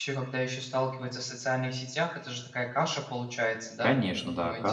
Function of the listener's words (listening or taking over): taking over